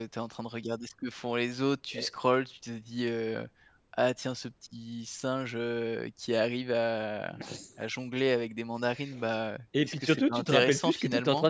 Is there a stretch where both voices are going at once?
Yes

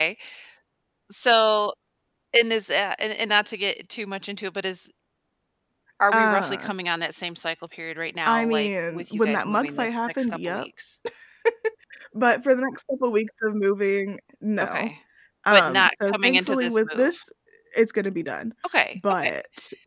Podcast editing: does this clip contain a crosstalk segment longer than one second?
Yes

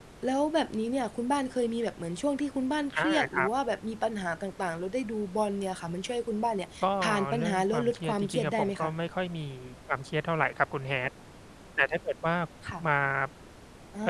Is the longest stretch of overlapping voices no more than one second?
No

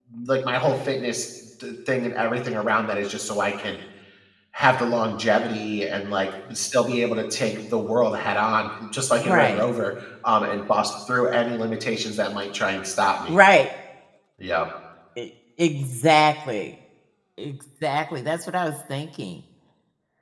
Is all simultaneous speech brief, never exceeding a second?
Yes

